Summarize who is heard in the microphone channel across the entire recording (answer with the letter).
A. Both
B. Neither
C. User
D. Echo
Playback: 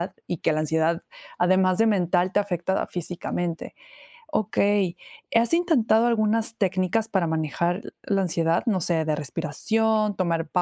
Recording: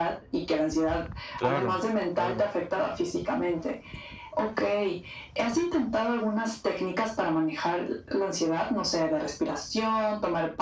A